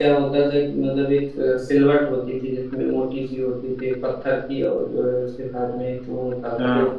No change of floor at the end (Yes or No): Yes